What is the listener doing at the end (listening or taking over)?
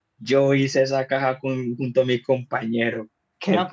taking over